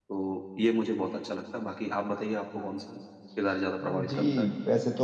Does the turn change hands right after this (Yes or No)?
Yes